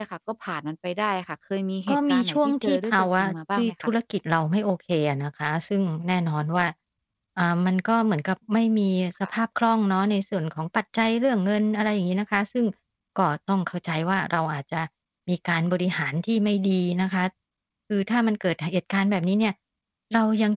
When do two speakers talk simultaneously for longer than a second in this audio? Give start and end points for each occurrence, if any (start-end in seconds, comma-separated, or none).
1.9-3.7